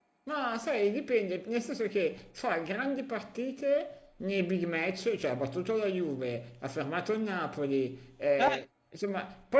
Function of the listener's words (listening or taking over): listening